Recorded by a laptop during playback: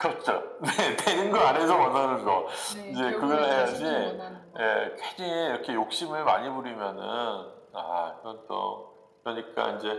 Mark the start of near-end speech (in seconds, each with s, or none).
2.7 s